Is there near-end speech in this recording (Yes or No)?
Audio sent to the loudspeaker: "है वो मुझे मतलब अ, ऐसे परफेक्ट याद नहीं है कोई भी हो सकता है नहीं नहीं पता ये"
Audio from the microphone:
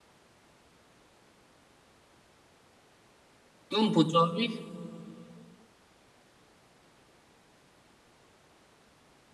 Yes